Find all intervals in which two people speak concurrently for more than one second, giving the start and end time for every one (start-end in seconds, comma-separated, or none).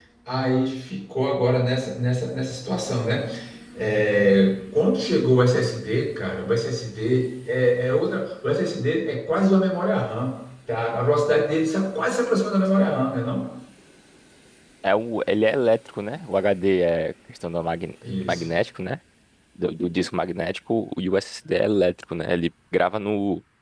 none